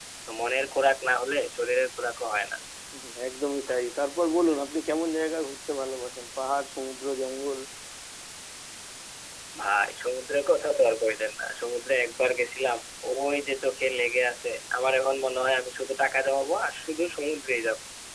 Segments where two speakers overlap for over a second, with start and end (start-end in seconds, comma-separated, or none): none